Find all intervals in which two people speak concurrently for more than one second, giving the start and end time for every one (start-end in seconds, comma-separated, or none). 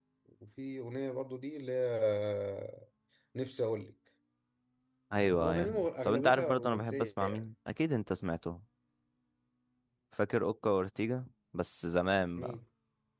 5.4-7.4